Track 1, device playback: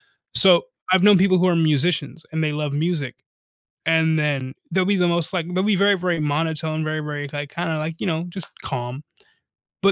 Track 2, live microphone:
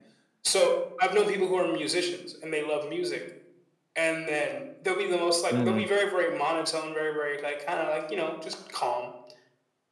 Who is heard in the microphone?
both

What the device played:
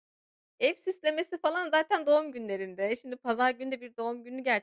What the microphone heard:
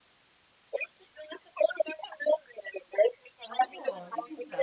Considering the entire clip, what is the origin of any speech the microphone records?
both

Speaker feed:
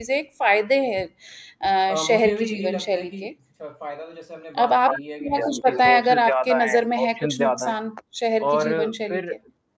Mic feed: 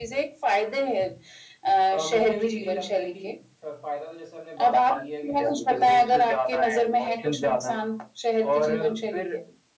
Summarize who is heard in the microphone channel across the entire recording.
echo only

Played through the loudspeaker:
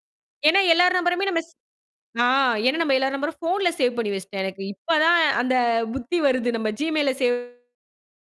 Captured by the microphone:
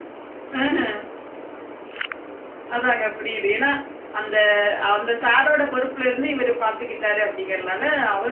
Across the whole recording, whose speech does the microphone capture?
user only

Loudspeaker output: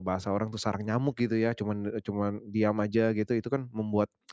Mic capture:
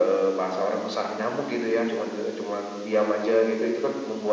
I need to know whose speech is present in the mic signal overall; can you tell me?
echo only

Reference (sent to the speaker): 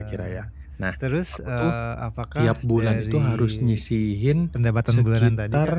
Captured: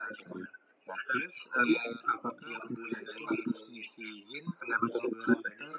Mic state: echo only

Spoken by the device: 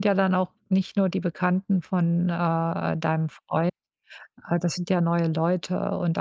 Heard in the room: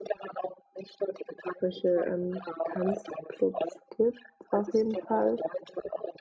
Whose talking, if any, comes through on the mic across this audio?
both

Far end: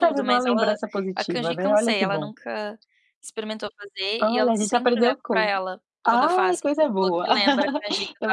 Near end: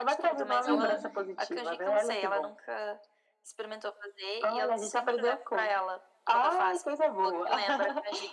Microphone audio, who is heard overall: both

